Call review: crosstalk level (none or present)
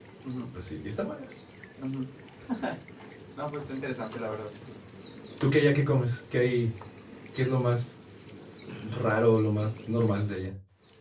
none